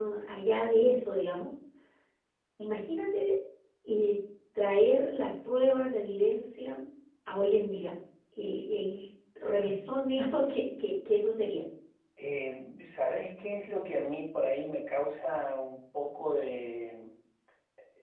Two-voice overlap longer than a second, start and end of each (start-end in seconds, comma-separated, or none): none